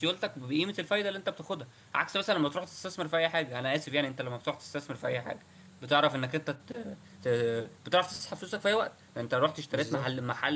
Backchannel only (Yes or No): Yes